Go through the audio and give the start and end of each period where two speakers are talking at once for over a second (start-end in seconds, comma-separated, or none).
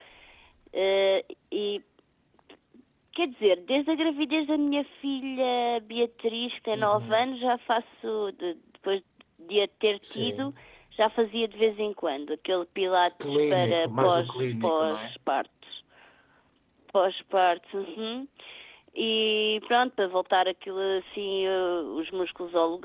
13.2-15.1